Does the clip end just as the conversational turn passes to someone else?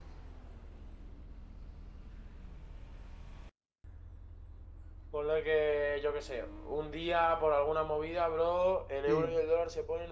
No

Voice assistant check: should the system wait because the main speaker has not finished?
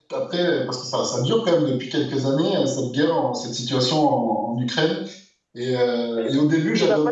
No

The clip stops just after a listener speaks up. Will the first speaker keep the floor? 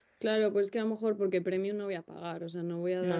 Yes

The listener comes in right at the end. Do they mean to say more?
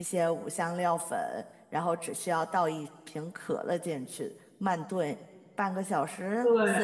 No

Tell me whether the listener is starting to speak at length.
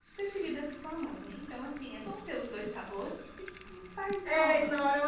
Yes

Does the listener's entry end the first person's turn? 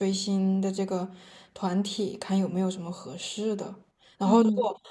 No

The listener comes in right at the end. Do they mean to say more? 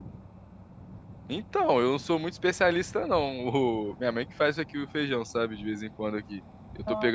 No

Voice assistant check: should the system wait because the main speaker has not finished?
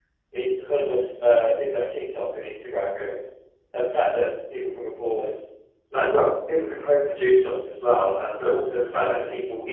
Yes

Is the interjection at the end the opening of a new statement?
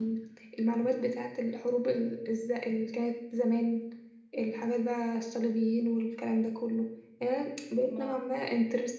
No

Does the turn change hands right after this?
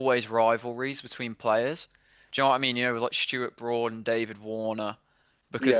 No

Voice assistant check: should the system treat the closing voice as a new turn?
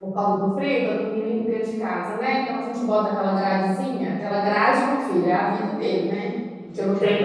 No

